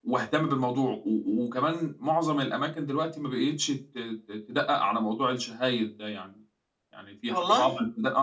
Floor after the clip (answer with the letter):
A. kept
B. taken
A